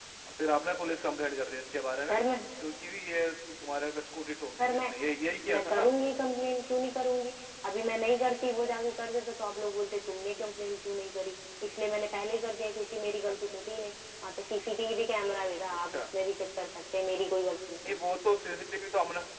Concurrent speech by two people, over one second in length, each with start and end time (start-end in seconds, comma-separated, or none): none